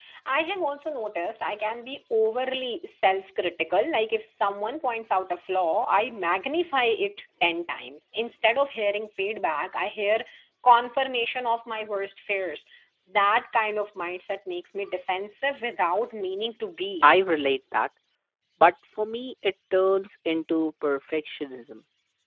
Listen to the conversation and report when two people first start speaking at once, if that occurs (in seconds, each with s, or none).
none